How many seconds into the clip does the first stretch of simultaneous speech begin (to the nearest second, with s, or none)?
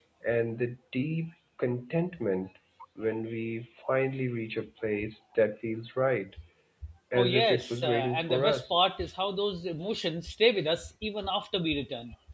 7 s